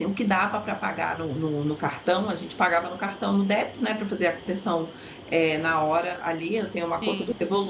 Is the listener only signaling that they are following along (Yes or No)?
Yes